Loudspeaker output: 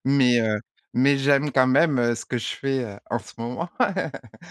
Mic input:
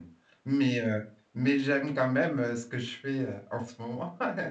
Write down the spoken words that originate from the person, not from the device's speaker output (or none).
none